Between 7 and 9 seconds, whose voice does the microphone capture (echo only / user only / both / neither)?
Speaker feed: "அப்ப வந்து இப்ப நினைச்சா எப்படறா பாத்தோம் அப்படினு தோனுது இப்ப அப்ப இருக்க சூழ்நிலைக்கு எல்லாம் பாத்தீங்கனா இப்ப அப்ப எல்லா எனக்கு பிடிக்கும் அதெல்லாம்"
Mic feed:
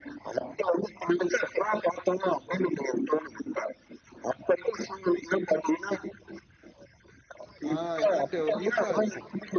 both